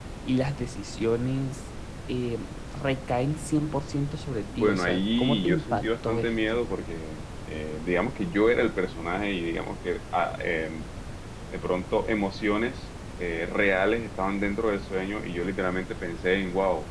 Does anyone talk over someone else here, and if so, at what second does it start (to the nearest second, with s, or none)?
5 s